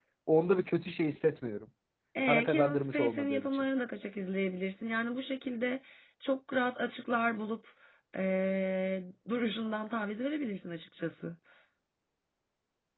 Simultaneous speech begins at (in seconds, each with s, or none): 2.3 s